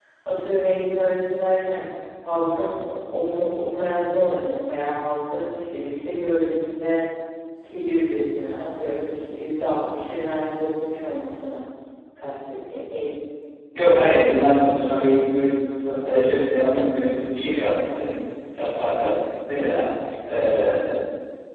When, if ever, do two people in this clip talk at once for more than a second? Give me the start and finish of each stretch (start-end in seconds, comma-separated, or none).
none